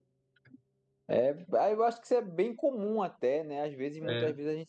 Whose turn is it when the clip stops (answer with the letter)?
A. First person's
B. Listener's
A